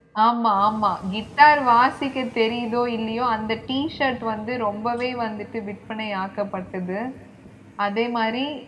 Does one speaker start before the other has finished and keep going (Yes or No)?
No